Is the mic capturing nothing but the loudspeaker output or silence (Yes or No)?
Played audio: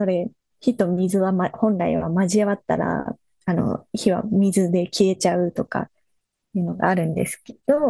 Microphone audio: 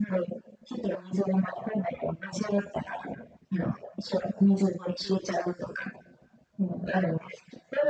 Yes